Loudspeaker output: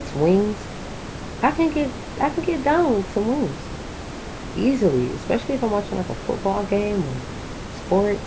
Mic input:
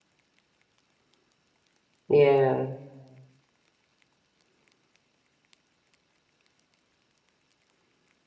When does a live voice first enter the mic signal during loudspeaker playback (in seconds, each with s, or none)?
2.1 s